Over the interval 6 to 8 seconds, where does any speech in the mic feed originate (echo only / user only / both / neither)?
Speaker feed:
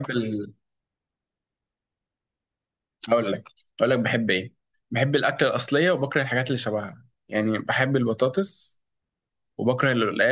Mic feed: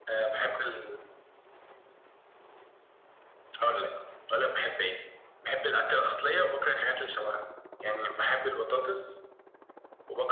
echo only